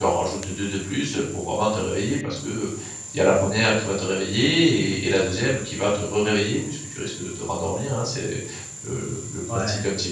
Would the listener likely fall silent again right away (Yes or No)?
Yes